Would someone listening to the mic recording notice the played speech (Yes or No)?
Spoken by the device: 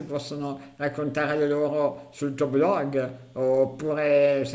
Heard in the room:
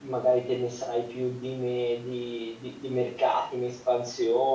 No